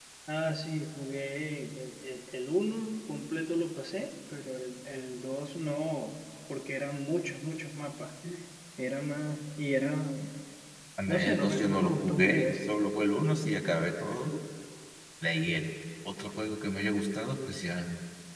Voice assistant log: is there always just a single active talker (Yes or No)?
No